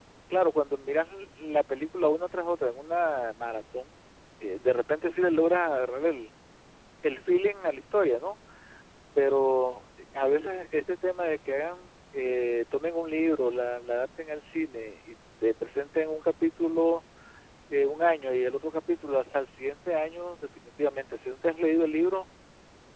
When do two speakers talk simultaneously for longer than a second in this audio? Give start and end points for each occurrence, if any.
none

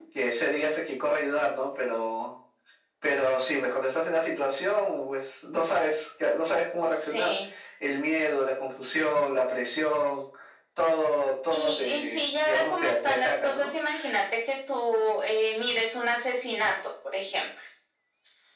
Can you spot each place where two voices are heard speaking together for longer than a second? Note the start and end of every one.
11.5-13.7

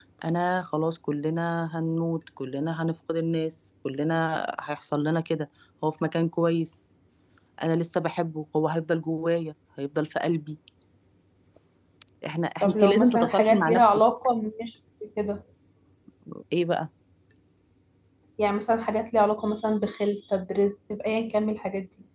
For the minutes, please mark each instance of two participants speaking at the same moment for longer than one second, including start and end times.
12.6-14.0

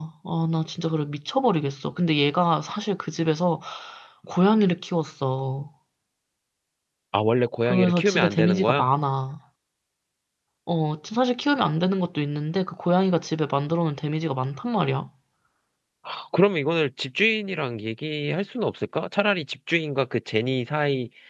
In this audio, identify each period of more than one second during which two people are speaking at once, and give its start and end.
7.7-8.9

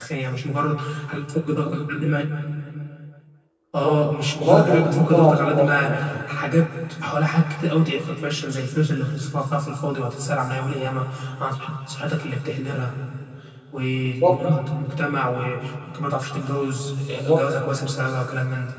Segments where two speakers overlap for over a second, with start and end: 4.4-5.9

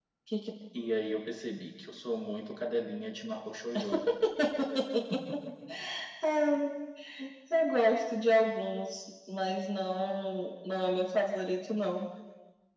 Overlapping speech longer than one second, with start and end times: none

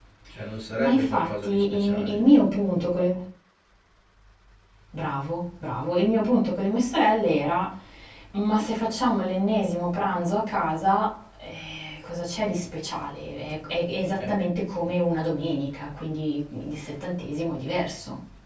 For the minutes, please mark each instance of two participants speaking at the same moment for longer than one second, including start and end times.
0.8-2.3

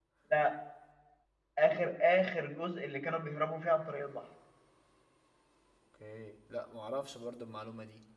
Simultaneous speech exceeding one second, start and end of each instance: none

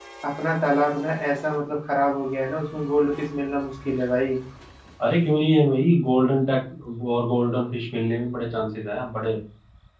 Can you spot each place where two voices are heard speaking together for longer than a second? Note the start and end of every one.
none

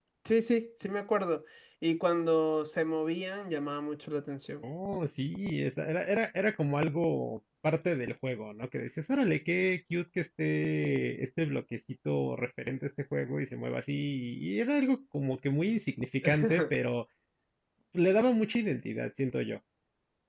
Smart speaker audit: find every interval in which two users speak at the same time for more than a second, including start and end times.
none

